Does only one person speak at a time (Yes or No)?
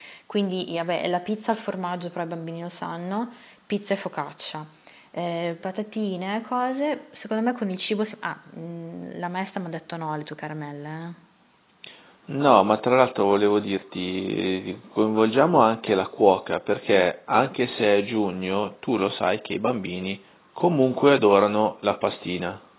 Yes